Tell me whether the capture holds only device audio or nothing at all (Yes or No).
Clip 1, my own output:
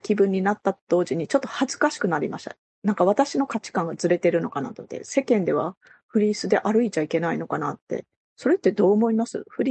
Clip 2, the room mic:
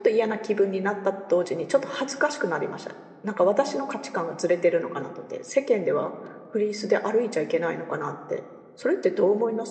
Yes